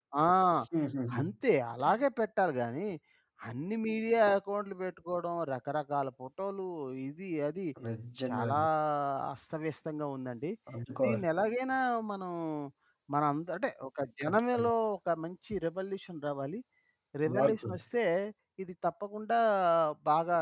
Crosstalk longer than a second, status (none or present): none